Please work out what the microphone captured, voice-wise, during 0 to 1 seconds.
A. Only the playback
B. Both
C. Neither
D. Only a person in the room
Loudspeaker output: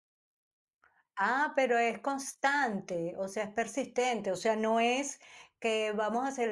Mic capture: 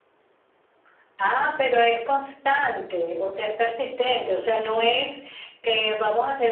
C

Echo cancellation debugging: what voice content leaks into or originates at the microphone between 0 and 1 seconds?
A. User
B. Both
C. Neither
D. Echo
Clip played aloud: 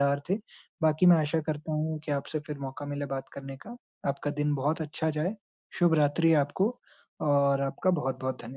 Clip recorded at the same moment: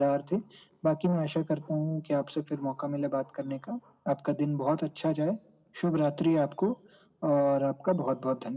D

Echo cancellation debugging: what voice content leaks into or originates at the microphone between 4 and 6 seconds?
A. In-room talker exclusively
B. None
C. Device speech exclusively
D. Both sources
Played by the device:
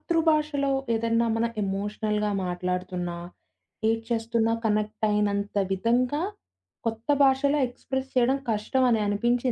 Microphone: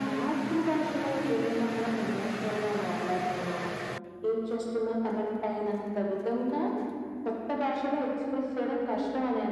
C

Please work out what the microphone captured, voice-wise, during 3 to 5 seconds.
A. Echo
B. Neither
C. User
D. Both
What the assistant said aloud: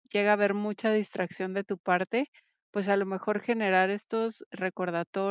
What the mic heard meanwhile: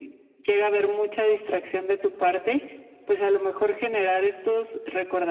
A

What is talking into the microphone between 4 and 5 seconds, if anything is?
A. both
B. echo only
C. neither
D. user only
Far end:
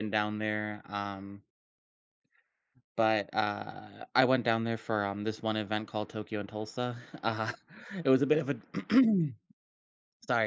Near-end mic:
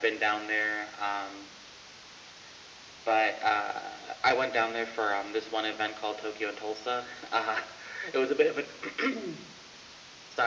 B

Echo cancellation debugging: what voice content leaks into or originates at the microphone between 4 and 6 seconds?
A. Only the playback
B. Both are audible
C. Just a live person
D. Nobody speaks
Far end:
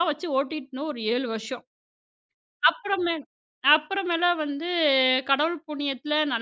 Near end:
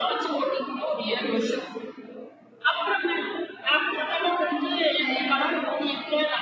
A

